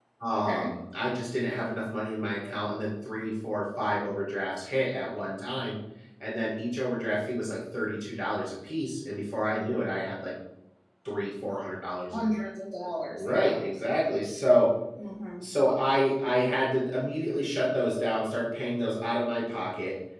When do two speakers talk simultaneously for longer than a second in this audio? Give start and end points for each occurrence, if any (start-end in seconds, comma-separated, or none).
none